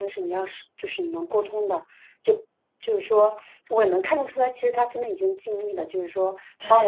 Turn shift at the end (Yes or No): No